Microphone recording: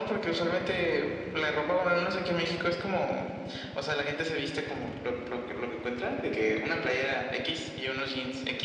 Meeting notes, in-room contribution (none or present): none